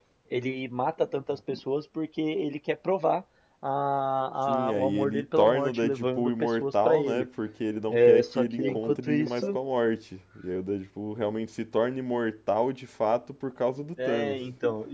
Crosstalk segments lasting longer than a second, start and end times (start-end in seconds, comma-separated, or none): 4.5-7.3, 7.9-9.6